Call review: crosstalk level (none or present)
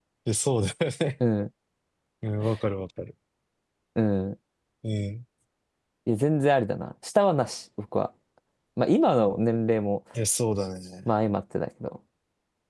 none